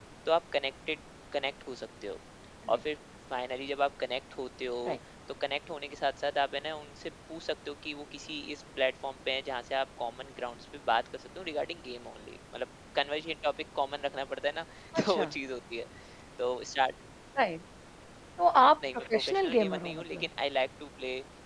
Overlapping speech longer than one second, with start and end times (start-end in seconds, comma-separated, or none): 18.9-20.3